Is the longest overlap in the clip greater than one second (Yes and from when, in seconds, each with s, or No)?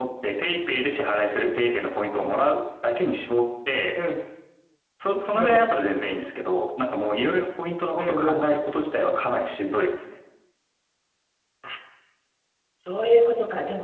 No